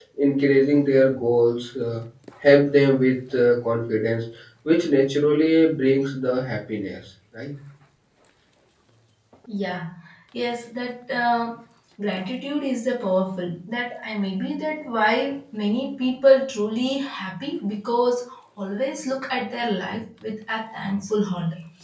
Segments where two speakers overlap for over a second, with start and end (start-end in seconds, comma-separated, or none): none